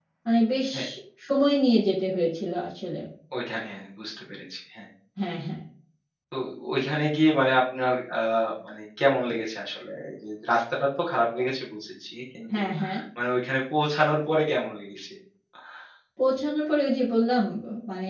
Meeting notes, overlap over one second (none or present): none